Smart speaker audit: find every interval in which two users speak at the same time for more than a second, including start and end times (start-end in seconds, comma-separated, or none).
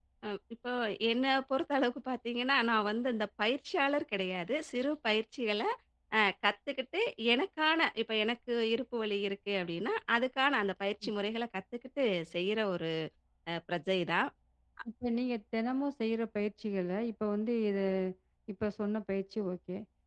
none